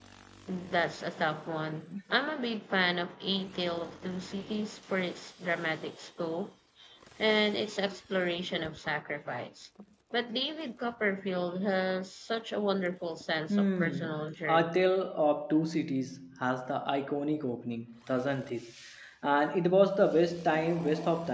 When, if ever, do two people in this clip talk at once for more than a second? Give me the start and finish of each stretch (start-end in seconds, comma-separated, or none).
13.5-14.7